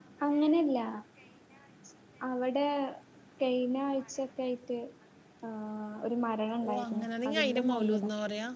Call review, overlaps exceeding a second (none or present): present